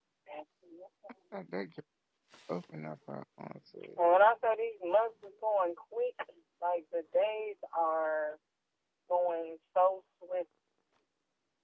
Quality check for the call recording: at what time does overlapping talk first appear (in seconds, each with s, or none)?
none